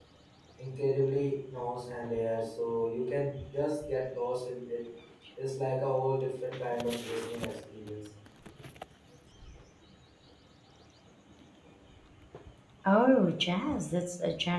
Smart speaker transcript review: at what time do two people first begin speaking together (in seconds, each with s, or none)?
none